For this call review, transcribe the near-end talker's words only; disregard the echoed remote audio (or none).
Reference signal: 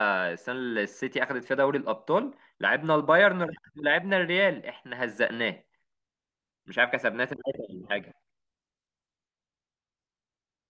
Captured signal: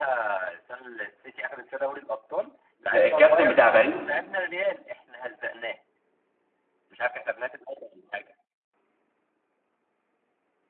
الكابتن بتاع باريس